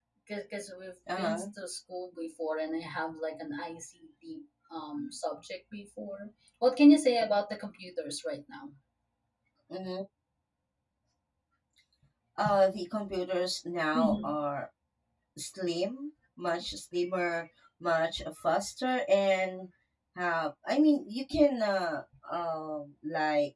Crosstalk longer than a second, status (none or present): none